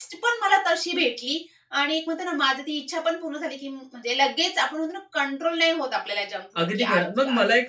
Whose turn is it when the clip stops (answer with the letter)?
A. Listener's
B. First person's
A